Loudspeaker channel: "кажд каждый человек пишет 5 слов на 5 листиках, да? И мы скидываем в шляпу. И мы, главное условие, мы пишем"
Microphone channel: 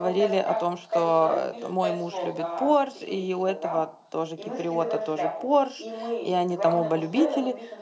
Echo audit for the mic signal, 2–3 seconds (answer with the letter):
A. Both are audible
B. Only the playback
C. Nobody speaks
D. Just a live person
A